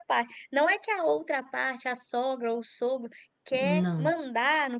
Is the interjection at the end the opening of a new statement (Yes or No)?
No